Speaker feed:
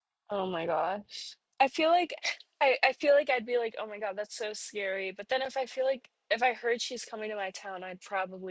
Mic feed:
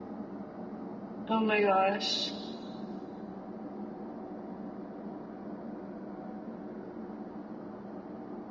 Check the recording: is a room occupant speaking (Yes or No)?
Yes